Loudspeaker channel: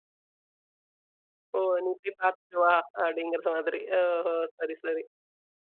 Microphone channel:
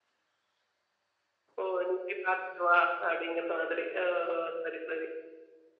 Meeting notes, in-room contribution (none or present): none